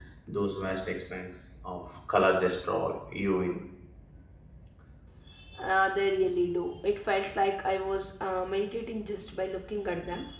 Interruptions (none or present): none